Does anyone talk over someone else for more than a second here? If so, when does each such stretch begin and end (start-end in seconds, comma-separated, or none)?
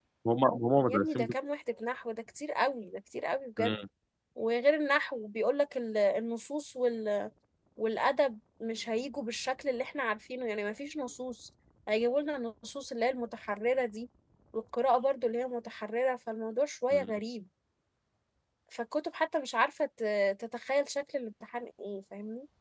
none